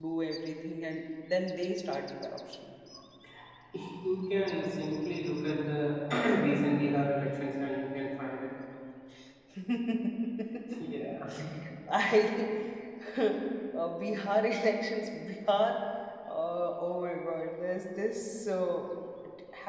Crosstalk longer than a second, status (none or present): none